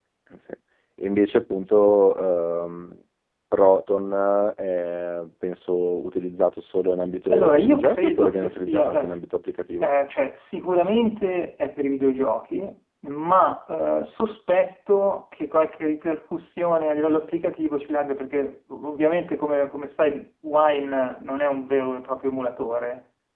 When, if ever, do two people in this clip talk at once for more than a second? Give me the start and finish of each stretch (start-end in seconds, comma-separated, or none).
7.3-9.2